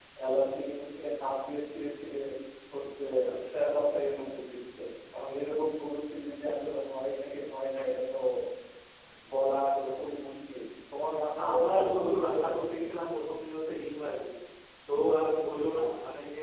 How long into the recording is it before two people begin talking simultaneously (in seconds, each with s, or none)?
11.4 s